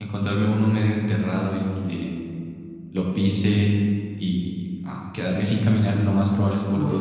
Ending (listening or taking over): listening